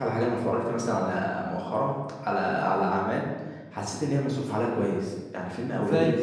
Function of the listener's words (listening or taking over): listening